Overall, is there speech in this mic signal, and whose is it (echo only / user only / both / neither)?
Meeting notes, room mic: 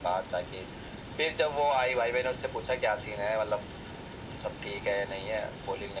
echo only